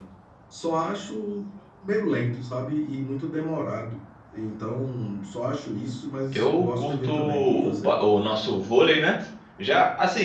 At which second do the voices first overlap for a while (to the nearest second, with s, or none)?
6 s